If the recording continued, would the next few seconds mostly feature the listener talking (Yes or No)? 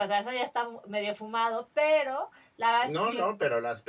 Yes